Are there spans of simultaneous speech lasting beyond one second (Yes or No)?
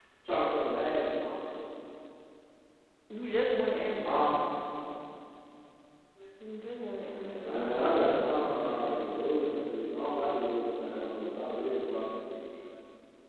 No